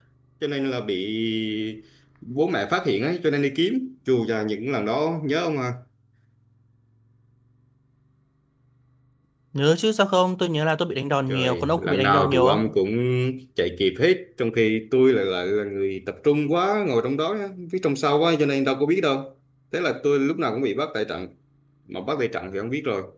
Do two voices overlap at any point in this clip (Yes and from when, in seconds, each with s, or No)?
Yes, from 11.3 s